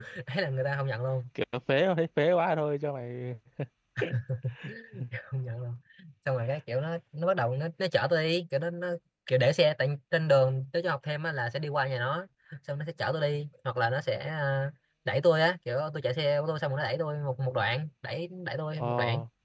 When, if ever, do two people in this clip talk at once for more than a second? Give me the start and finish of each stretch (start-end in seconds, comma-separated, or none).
none